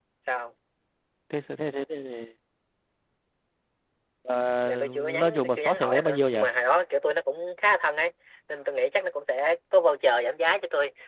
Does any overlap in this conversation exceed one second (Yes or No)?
Yes